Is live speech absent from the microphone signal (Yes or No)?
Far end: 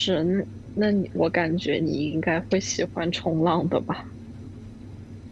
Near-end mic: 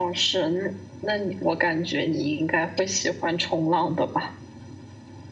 Yes